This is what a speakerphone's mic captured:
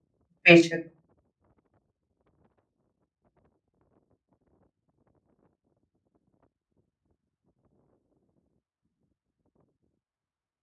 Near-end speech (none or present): present